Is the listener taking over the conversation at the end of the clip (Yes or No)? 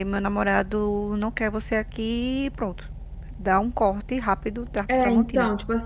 Yes